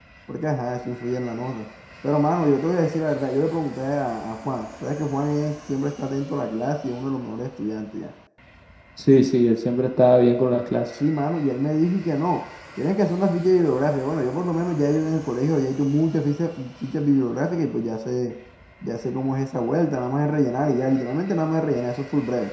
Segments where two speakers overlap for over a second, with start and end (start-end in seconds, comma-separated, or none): none